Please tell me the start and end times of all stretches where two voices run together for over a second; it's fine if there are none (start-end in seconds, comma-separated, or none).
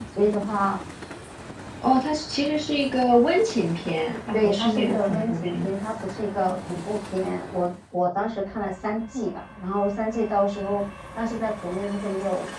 4.3-5.7